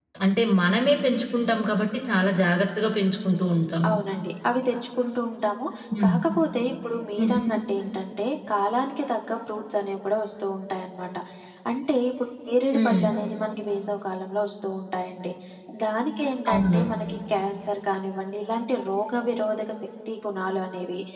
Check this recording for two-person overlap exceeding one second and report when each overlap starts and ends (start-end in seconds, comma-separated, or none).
none